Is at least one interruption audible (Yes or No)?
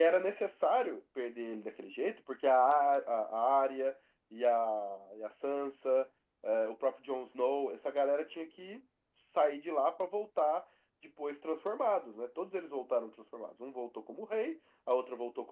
No